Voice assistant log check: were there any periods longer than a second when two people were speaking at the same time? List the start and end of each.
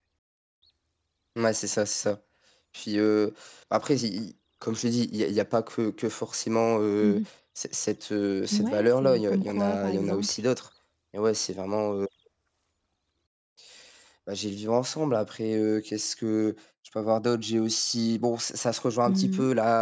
8.5-10.3

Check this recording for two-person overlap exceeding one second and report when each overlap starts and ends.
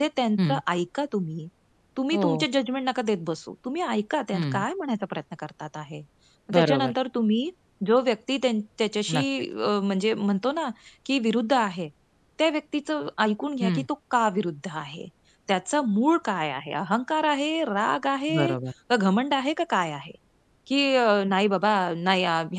none

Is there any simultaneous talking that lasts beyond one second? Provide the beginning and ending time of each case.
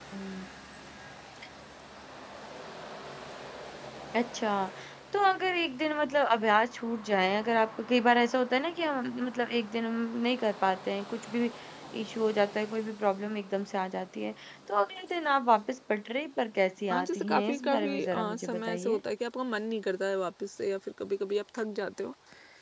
16.9-19.0

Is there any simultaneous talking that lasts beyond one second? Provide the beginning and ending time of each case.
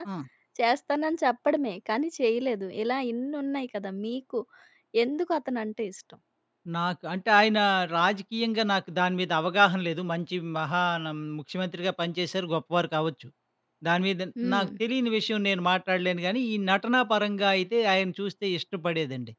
none

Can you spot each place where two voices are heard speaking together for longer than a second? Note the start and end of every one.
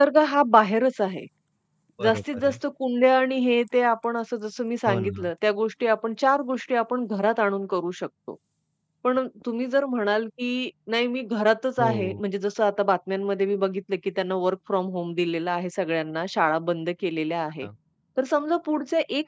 none

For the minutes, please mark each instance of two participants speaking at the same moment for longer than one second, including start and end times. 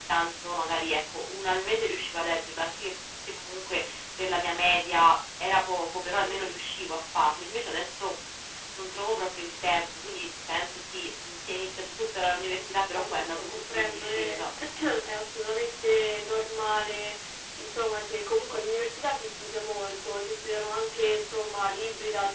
12.4-14.4

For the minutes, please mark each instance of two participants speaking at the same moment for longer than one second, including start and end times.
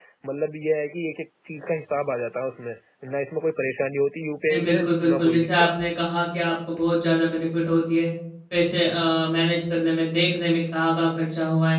4.5-5.7

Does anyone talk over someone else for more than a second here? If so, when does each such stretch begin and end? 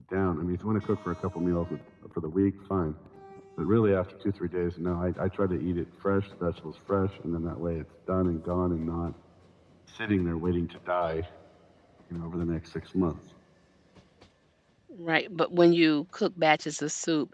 none

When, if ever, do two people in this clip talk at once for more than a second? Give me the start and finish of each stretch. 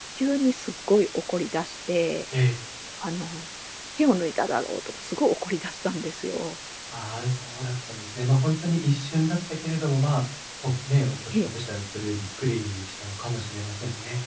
none

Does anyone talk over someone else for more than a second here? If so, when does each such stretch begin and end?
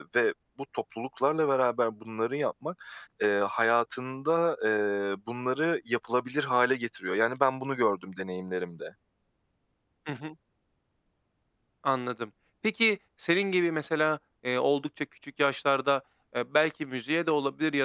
none

